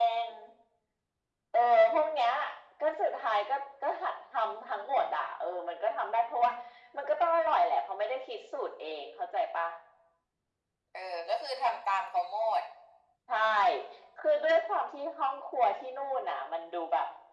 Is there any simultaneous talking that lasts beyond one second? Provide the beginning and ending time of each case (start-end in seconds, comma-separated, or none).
none